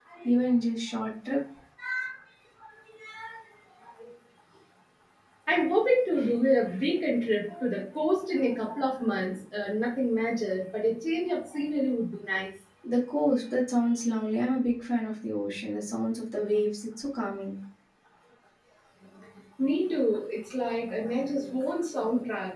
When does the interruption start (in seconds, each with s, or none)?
none